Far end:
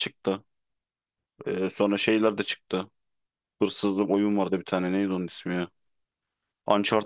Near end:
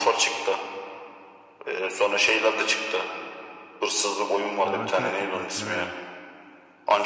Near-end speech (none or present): present